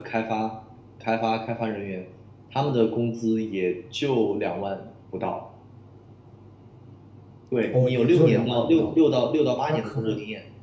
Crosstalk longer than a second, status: present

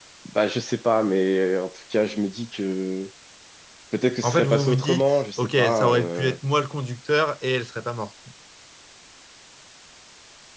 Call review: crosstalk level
present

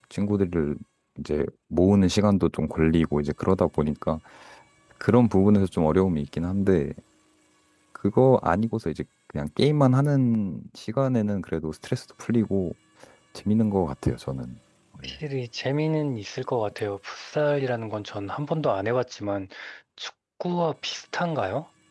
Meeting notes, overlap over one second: none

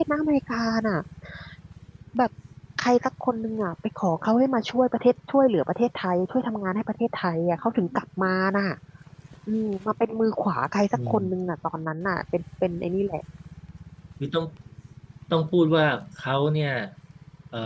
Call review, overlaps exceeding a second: none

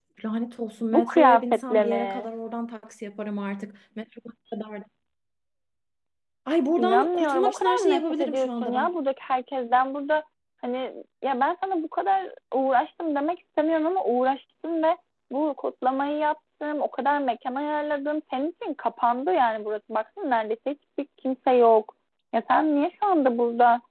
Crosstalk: present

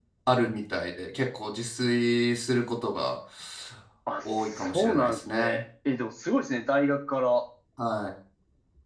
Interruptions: present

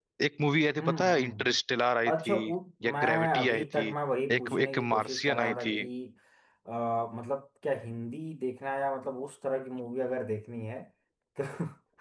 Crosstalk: present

